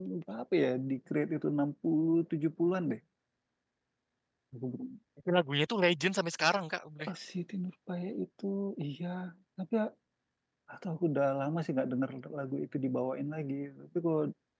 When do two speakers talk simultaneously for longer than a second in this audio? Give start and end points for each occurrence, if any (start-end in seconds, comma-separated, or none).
none